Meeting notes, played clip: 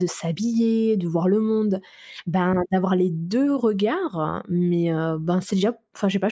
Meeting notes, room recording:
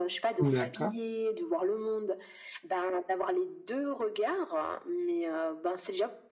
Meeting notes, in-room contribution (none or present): present